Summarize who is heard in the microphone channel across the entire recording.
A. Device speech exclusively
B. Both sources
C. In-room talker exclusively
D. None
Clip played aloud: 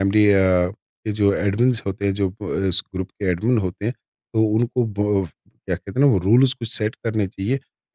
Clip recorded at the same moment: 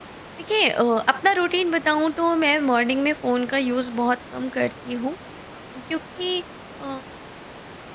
C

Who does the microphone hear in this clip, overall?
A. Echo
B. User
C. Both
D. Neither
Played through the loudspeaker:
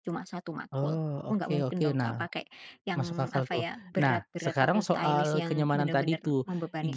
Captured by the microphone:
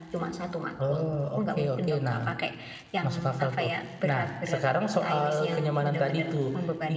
A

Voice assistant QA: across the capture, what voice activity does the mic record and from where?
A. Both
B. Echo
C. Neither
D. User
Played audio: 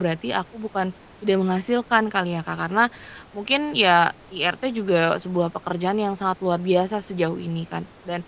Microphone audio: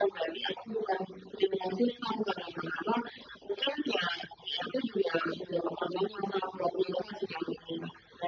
B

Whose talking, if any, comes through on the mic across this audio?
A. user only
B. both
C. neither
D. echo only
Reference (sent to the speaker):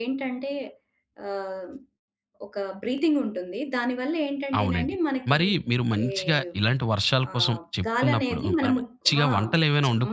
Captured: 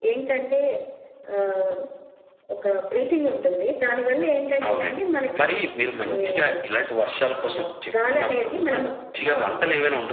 D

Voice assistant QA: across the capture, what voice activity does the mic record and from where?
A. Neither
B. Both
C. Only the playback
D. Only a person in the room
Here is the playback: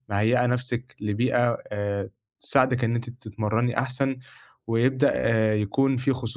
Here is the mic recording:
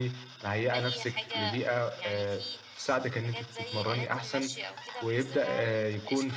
B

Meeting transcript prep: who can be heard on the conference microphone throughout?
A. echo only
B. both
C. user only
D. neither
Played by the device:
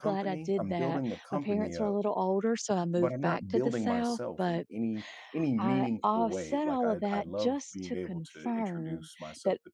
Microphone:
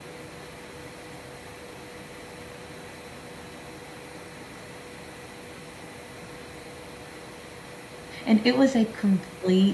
C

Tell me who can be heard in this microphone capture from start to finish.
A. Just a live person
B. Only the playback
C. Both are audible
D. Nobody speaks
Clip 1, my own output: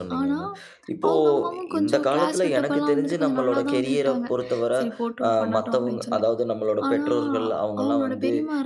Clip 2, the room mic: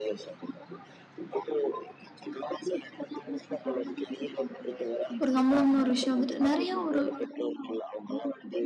C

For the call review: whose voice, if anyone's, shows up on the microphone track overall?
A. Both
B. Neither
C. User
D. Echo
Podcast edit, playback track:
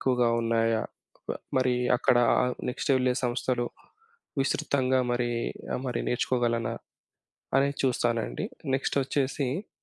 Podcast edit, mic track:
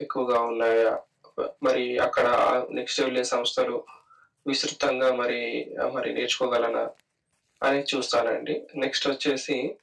D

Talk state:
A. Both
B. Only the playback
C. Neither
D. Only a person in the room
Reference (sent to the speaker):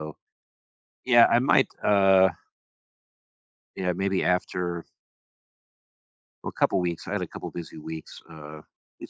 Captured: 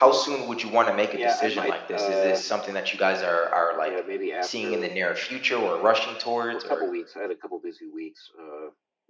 A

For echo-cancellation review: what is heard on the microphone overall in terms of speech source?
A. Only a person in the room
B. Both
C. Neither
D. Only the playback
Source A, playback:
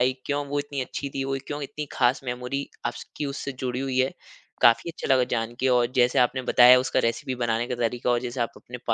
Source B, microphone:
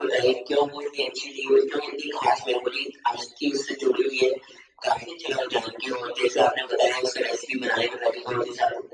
D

